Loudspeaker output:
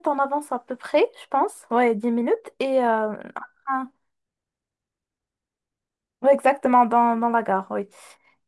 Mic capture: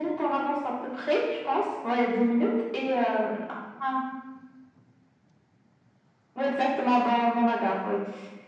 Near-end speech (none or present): none